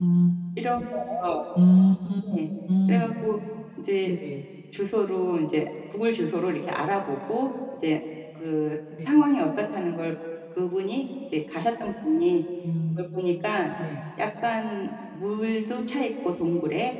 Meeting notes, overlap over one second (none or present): none